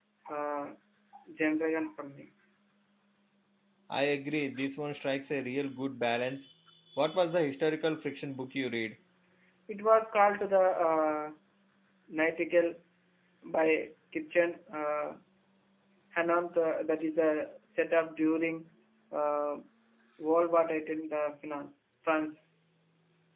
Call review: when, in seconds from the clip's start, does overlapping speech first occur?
none

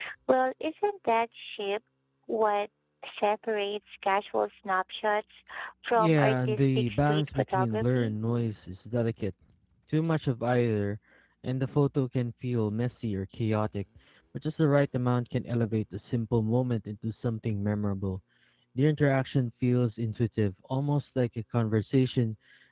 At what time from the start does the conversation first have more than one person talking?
6.0 s

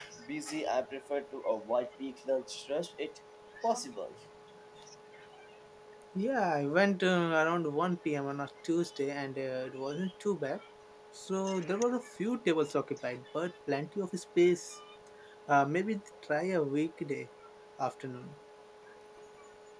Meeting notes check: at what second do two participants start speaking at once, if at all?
none

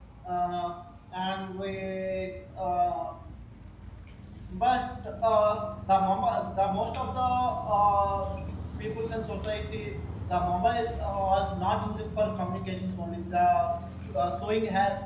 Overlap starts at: none

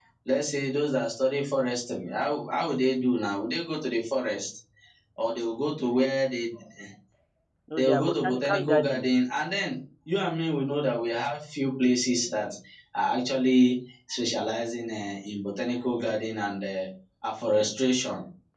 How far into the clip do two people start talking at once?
7.8 s

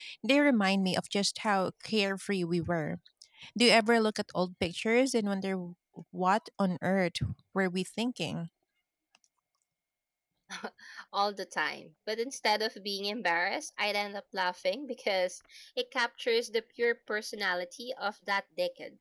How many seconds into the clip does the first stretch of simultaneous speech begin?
none

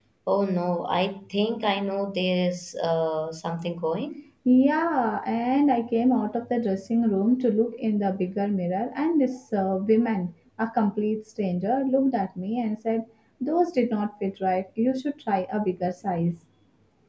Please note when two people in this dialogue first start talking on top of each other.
none

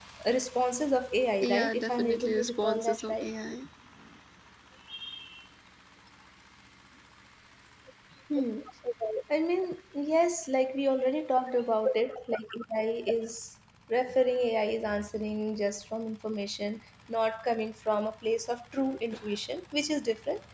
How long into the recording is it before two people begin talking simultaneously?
1.4 s

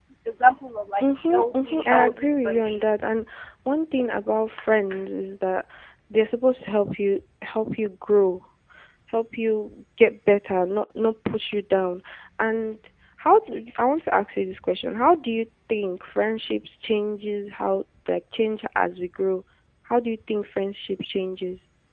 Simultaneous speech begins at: 1.3 s

